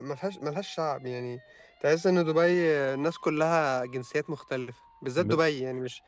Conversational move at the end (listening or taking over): listening